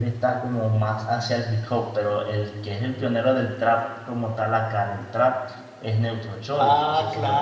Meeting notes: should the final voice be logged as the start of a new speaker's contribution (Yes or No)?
Yes